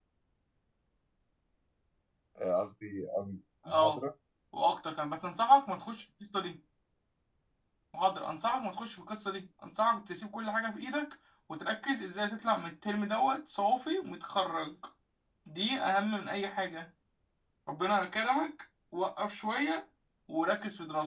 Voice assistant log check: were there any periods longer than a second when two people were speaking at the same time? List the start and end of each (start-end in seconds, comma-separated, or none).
none